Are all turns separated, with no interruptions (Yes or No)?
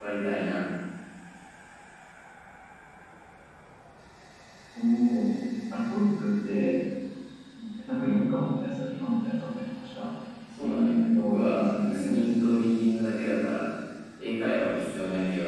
No